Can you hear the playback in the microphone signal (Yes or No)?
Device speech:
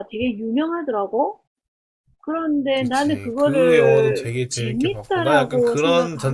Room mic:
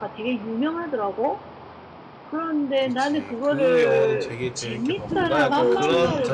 Yes